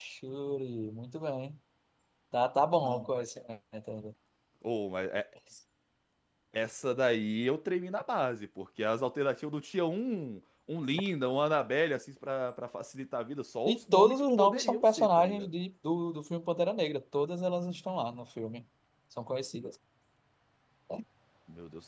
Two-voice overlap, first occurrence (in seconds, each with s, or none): 13.7 s